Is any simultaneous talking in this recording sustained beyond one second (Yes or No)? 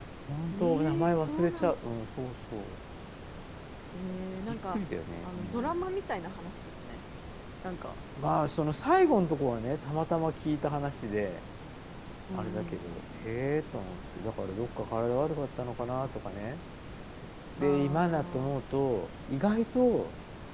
Yes